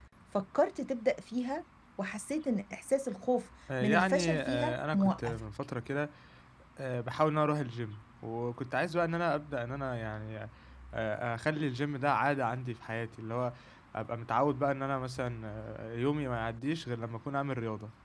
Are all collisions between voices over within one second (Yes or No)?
No